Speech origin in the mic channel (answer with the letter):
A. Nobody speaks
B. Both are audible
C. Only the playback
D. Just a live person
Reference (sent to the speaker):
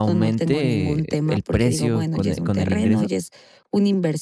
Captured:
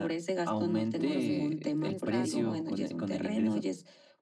B